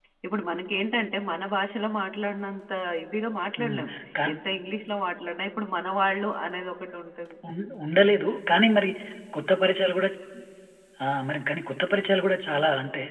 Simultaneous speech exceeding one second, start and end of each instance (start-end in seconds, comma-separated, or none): none